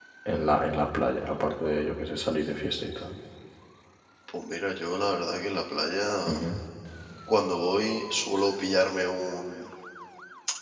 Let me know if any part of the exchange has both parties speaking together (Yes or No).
No